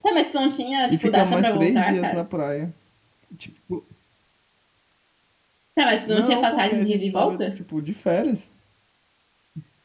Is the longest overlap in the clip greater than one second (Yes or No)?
Yes